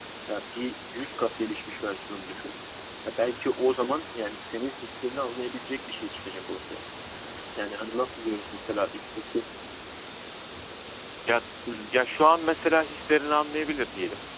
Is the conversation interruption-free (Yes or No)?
Yes